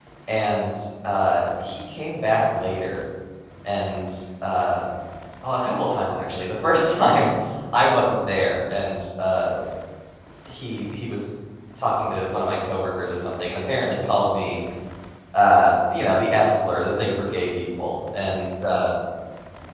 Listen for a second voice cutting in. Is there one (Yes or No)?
No